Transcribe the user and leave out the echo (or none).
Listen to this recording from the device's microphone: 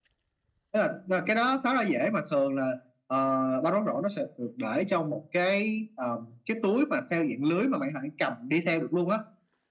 none